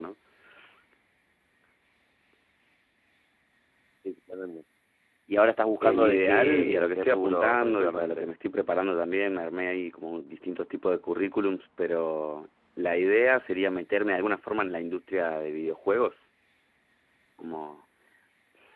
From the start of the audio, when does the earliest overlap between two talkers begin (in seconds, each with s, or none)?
5.8 s